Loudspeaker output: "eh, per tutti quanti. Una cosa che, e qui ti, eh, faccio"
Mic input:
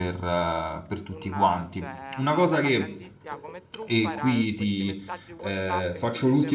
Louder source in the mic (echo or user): echo